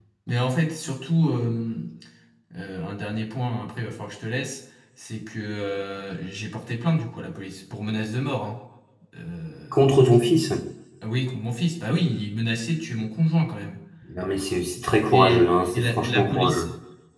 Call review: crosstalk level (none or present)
present